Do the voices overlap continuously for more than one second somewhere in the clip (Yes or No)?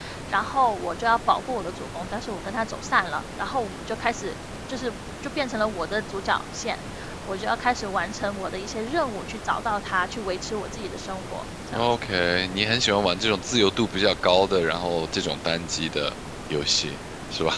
No